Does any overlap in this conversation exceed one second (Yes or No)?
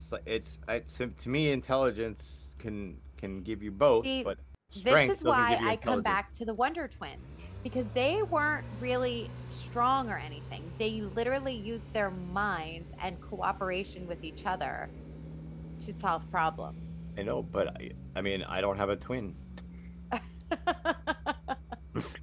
Yes